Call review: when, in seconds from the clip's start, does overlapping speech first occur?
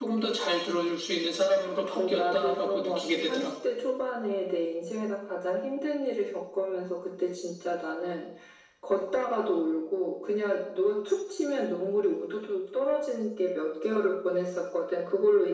1.9 s

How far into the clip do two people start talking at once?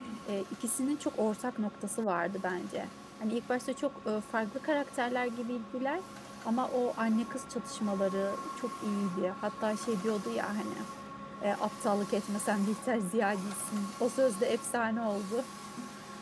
none

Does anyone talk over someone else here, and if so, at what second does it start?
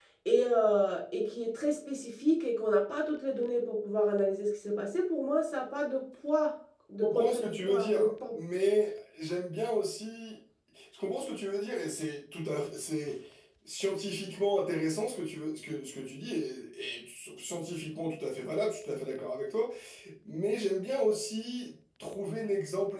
7.0 s

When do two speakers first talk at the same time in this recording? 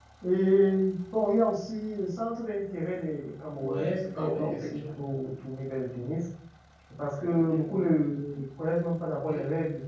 3.6 s

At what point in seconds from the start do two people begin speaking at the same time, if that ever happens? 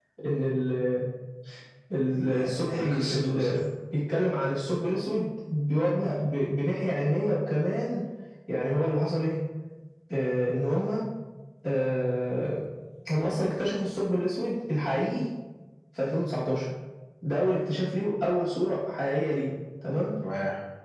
2.3 s

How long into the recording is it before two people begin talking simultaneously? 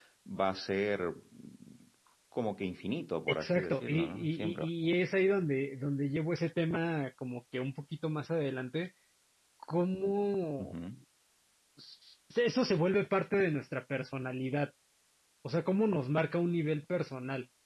3.3 s

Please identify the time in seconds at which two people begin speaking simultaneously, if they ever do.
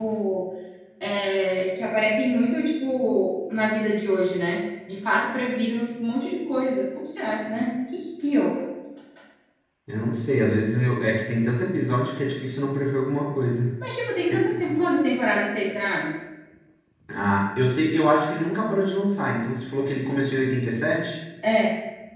none

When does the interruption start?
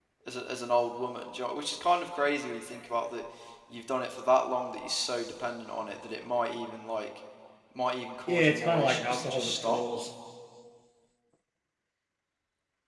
8.3 s

